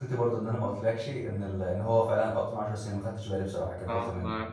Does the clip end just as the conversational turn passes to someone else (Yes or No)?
Yes